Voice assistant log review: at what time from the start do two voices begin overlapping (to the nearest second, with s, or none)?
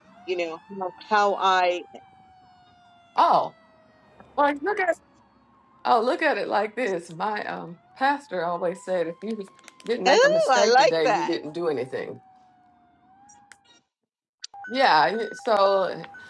10 s